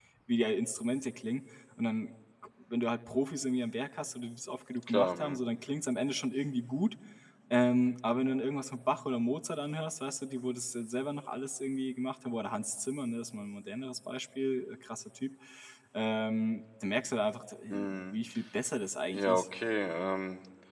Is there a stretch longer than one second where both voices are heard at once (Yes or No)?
No